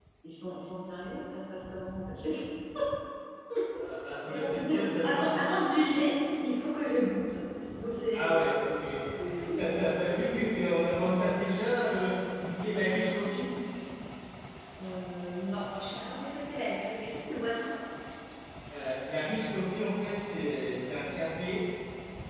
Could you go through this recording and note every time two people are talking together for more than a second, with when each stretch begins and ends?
4.3-5.6

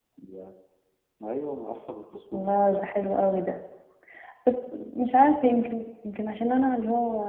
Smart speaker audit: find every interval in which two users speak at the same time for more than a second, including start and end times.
none

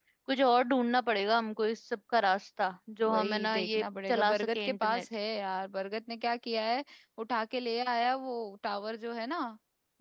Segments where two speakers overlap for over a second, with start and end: 3.1-5.0

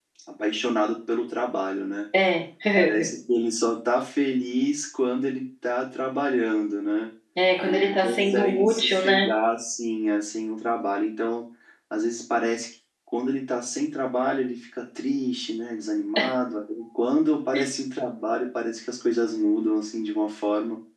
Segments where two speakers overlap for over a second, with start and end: 7.6-9.2

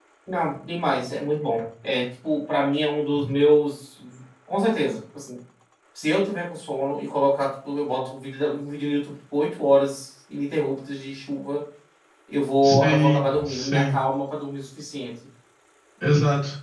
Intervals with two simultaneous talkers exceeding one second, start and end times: 12.6-14.0

